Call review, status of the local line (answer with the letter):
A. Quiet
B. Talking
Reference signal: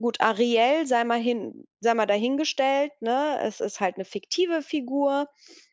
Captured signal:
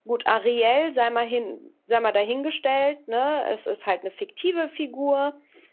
A